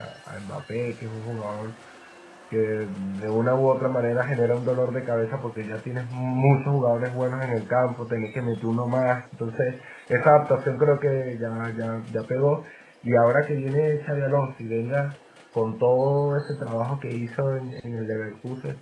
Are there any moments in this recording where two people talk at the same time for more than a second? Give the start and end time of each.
none

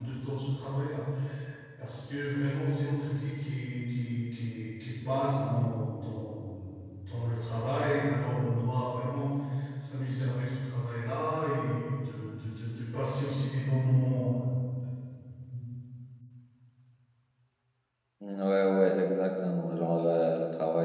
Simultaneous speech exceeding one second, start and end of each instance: none

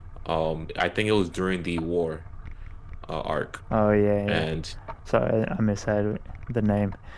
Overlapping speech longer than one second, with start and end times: none

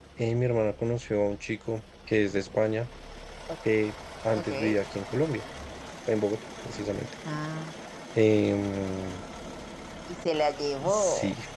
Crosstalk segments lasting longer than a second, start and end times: none

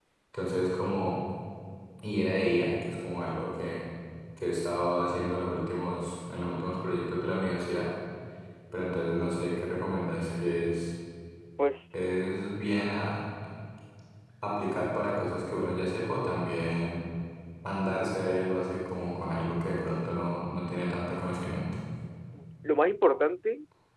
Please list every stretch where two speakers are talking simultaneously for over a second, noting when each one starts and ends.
none

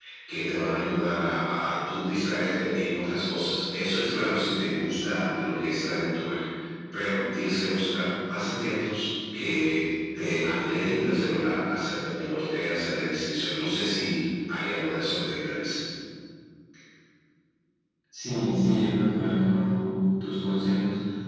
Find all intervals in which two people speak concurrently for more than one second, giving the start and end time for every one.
none

